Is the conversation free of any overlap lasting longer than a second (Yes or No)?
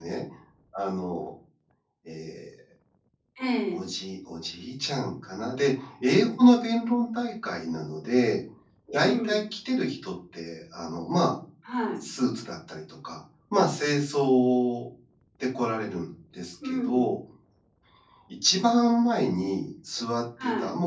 Yes